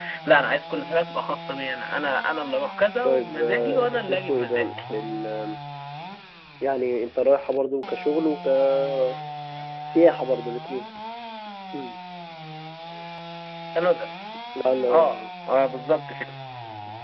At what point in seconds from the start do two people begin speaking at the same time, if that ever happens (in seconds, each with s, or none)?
3.0 s